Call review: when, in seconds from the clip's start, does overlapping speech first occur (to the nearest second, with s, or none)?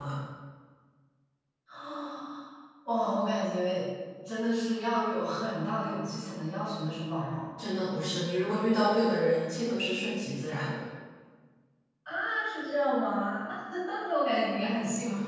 none